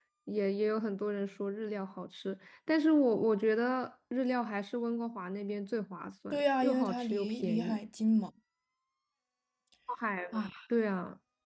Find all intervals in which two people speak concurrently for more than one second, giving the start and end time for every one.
6.3-7.8

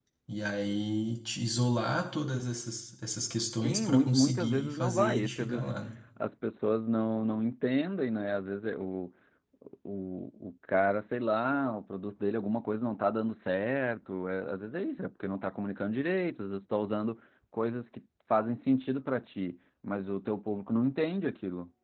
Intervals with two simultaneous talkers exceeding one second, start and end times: 3.6-5.7

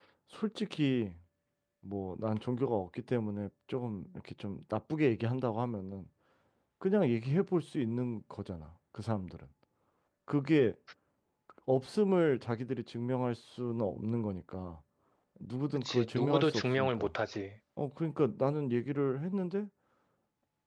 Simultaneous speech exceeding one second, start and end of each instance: 15.7-17.1

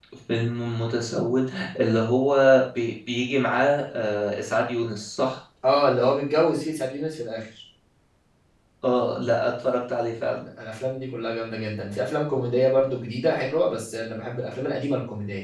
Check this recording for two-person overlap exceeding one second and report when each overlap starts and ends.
none

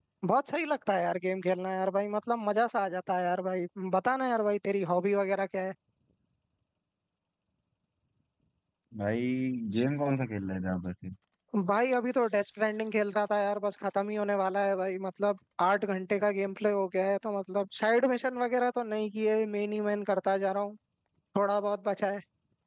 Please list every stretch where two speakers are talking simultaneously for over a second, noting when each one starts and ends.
none

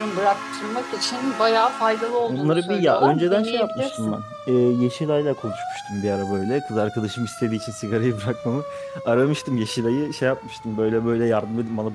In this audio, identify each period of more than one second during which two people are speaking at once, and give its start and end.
2.2-4.2

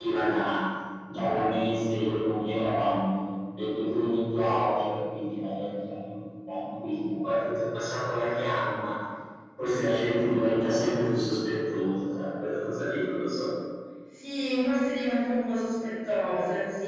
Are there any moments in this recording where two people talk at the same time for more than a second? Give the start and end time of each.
none

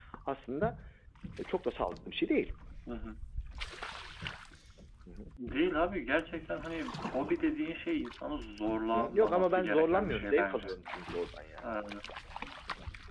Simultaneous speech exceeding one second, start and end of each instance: 8.9-10.7

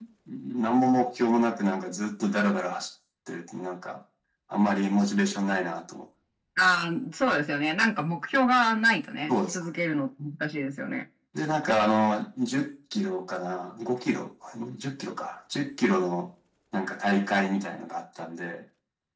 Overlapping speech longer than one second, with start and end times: none

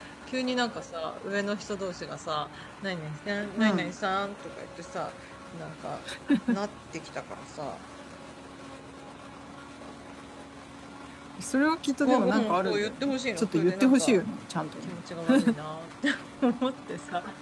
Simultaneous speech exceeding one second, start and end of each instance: 12.0-14.2

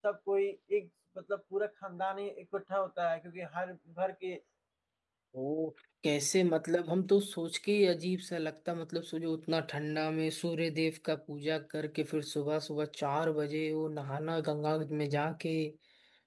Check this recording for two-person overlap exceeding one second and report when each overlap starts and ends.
none

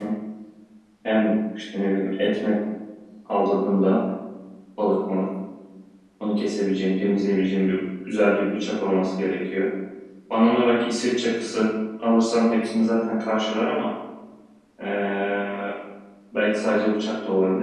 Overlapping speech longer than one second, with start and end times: none

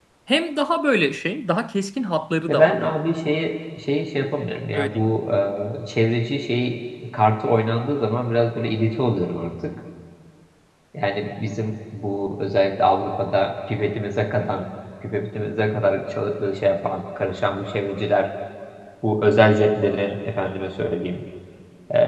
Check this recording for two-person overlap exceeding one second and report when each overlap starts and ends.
none

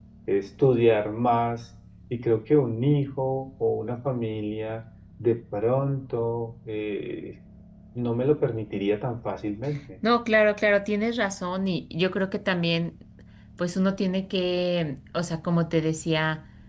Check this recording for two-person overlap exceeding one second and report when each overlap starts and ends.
none

